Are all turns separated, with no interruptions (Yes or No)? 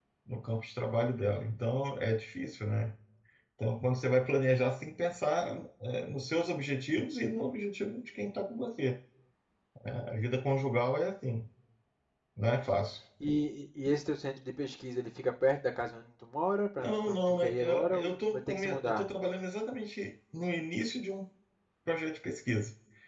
No